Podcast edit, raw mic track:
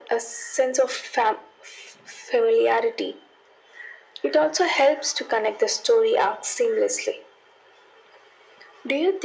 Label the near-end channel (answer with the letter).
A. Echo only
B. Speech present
A